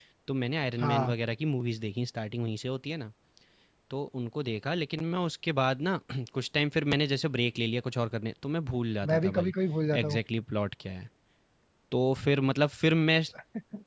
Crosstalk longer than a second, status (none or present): none